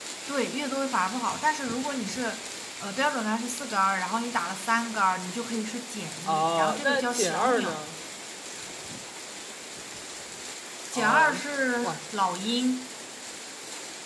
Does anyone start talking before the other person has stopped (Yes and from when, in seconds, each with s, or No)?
Yes, from 6.3 s